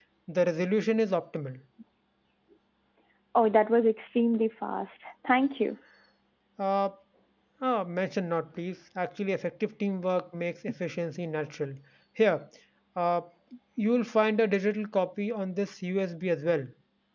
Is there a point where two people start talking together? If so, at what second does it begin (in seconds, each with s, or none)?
none